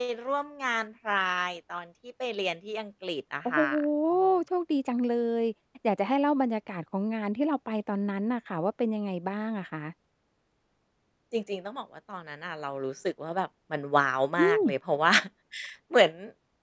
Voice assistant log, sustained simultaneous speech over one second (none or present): none